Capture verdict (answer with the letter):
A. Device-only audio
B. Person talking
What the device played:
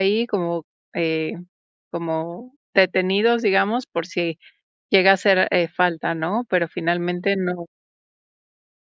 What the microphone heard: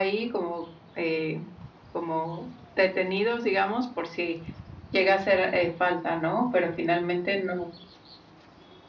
A